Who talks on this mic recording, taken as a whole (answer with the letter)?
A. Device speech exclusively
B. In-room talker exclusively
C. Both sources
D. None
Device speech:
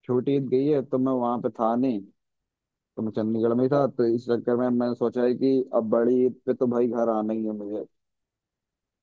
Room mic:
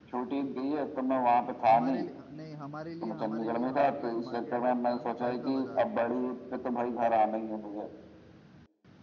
C